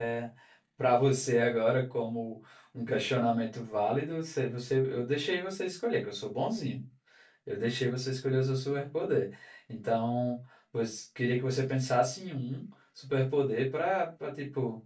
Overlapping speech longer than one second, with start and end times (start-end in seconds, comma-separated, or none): none